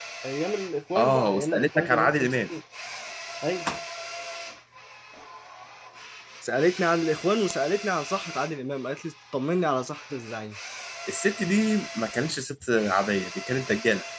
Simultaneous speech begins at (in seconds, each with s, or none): 0.9 s